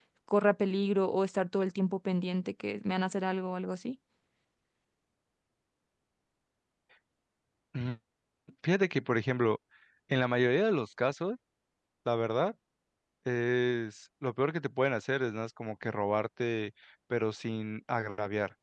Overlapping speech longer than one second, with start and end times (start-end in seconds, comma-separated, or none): none